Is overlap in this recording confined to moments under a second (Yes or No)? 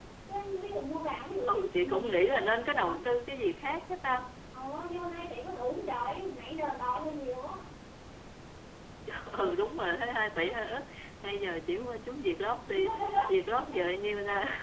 No